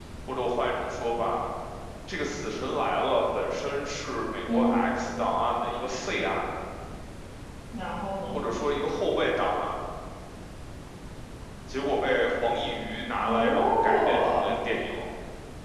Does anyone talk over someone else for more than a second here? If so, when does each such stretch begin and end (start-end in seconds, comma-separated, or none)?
13.2-14.6